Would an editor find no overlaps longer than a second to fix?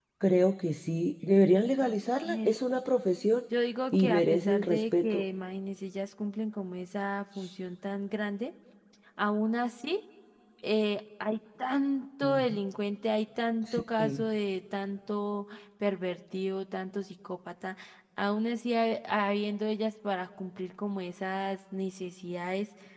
No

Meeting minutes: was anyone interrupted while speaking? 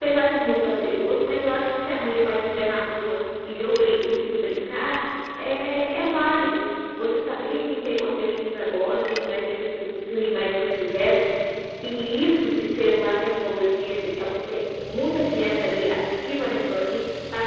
No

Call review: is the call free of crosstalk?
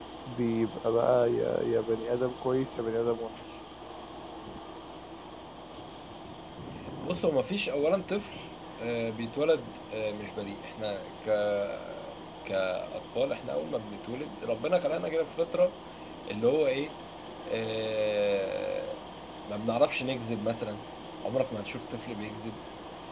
Yes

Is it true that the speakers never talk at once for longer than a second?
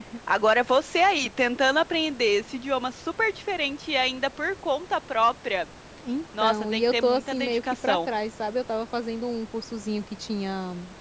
No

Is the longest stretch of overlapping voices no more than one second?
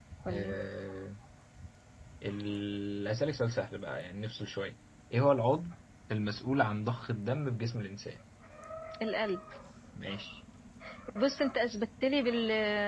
Yes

